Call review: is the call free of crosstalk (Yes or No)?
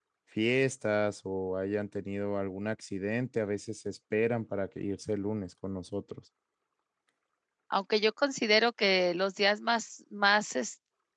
Yes